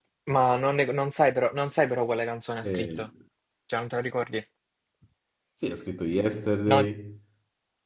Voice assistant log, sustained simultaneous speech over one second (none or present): none